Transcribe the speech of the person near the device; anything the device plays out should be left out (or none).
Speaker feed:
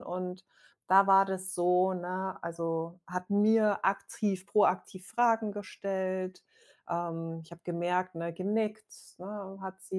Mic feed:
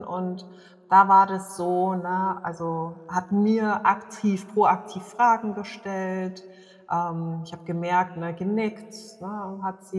none